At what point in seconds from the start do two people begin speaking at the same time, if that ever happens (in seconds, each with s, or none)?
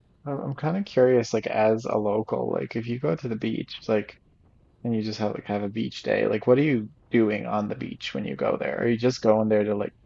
none